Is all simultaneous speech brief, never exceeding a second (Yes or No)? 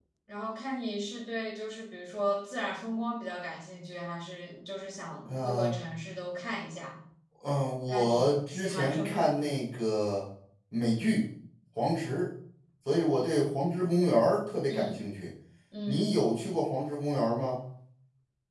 No